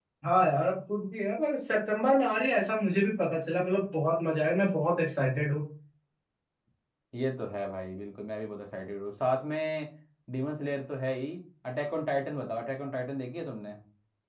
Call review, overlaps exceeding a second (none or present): none